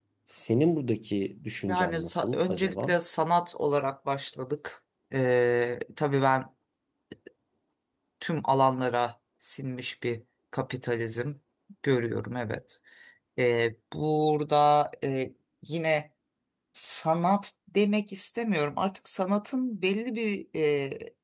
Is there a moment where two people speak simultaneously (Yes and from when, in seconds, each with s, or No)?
Yes, from 1.7 s